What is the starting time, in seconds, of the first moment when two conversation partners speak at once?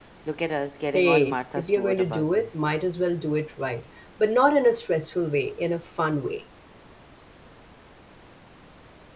0.9 s

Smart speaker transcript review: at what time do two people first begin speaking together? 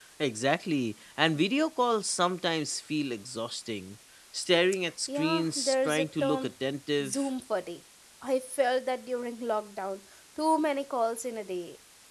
5.2 s

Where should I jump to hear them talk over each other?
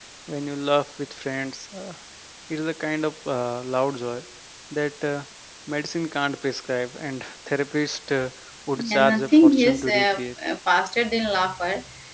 8.8 s

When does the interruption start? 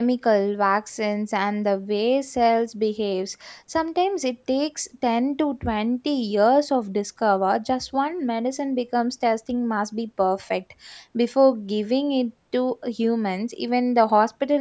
none

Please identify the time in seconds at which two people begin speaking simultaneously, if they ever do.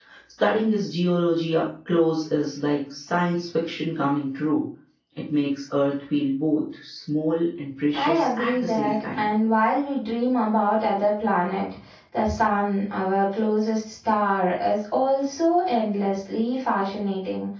7.9 s

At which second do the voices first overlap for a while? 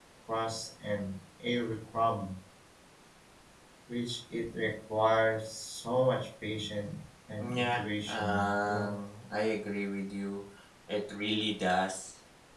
7.4 s

